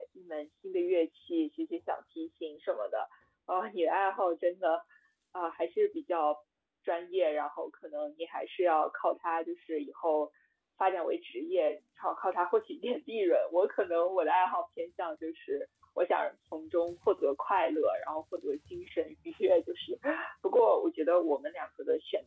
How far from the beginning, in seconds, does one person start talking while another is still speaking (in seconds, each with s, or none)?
none